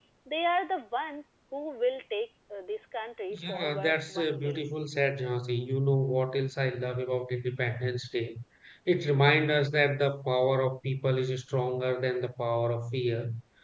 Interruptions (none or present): present